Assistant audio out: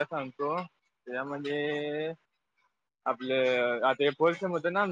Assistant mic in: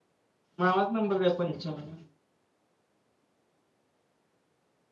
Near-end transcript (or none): मामा नंबर द्या पंच्यानव